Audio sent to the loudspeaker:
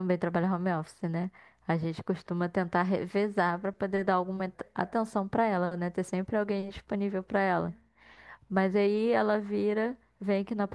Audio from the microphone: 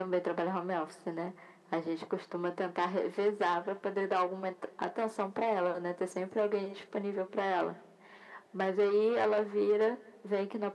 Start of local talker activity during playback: none

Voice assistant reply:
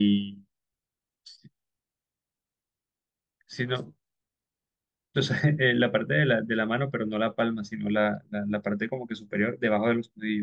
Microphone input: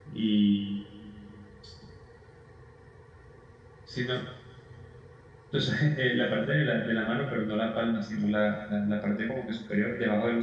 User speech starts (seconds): none

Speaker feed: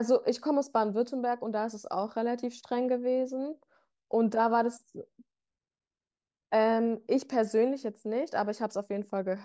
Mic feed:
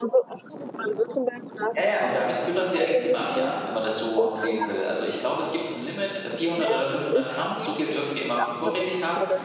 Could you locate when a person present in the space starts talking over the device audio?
2 s

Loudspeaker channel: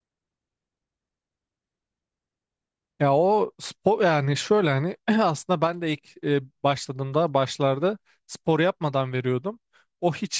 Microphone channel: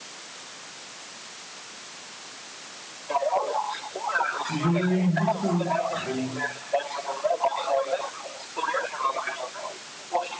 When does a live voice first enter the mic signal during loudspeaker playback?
5 s

